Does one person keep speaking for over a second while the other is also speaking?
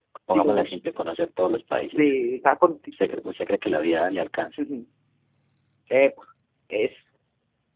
No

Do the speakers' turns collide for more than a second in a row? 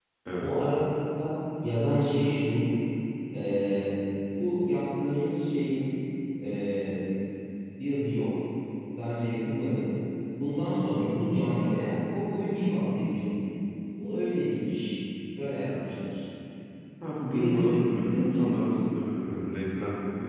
Yes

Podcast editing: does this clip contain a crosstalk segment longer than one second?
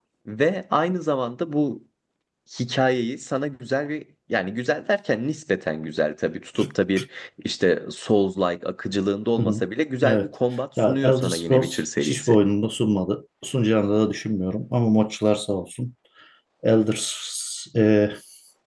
Yes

